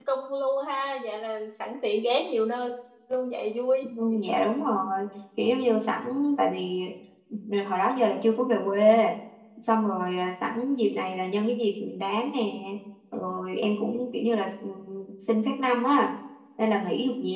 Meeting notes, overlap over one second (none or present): none